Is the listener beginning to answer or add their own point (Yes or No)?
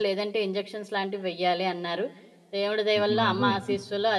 No